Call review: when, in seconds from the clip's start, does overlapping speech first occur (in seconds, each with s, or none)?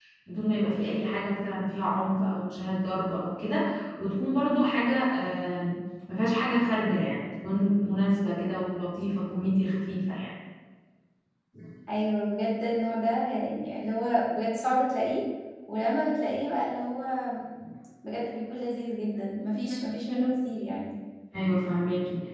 none